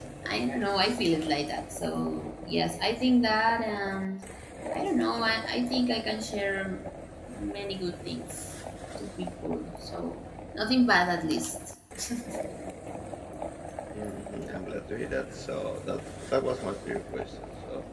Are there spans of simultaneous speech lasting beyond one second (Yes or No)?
No